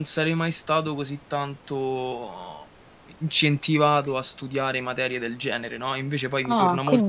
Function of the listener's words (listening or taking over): taking over